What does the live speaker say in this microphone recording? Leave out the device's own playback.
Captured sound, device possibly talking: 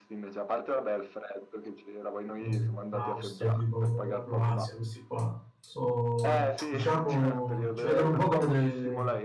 eh, l'Austria, tipo la Croazia, questi qua, so, diciamo, ci vedono un po' come dei,

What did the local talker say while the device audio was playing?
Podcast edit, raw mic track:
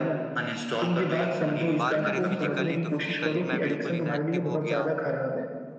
बात करें फिजिकली तो फिजिकली मैं बिल्कुल इनएक्टिव हो गया

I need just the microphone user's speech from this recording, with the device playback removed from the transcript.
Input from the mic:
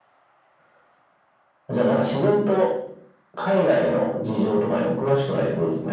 none

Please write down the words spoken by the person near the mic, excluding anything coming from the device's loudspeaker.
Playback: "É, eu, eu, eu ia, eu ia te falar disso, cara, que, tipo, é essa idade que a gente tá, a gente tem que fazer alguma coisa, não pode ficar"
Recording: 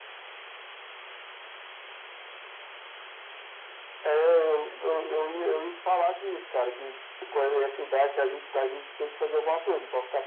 none

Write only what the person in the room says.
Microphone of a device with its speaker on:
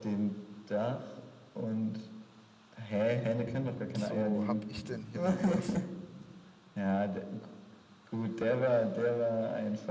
so, hab ich denn hier noch was?

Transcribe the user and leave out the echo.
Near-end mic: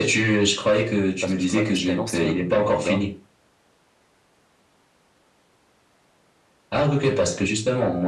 Parce que je croyais que c'était un ancien manga

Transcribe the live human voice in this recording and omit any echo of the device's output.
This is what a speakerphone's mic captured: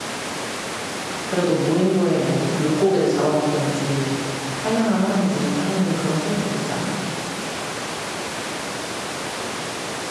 그래도 무인도에 뭐 물고기를 잡아먹던지 사냥을 하던지 하는 그런 설정 있지 않아?

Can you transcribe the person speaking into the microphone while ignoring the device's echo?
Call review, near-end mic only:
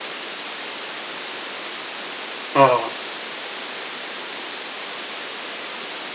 哦

